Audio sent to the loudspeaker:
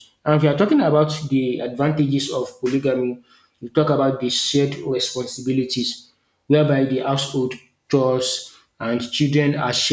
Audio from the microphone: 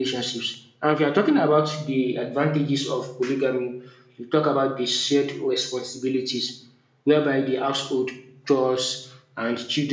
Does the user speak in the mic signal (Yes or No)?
No